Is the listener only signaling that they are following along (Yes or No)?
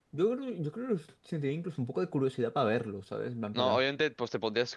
No